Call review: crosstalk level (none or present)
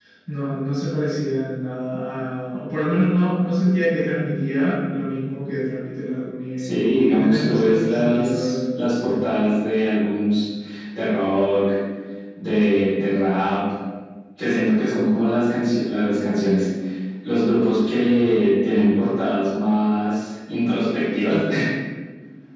present